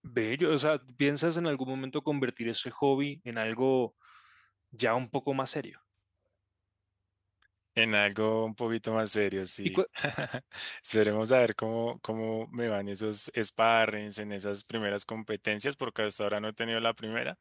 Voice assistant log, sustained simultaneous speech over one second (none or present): none